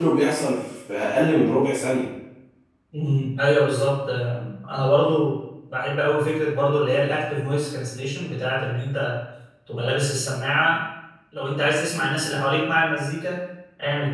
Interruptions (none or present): none